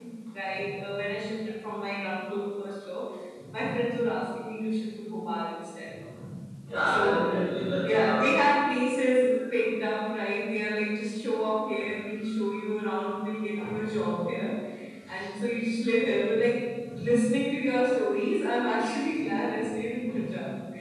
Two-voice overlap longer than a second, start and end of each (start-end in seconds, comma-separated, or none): none